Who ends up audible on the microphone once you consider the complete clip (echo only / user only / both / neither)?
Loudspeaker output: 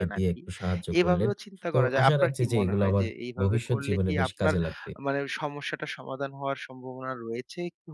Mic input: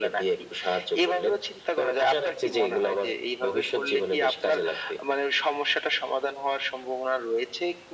echo only